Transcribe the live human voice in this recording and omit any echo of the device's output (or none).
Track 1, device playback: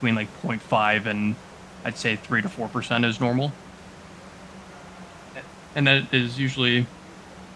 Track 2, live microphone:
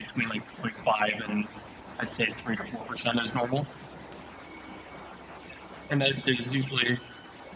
none